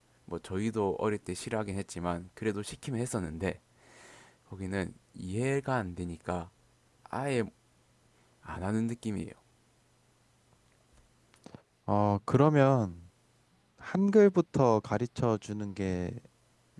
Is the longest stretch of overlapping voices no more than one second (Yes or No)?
Yes